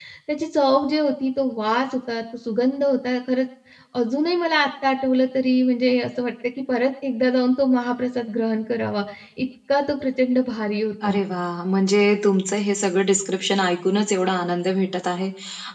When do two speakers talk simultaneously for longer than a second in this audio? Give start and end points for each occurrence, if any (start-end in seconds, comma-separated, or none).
none